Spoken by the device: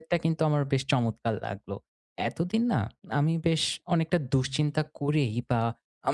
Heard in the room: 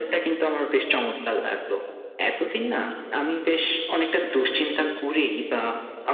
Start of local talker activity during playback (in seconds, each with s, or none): none